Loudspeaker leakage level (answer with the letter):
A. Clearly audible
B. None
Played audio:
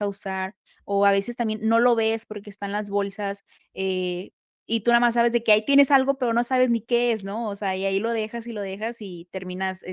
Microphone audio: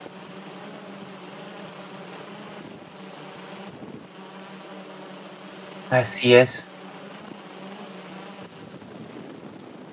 B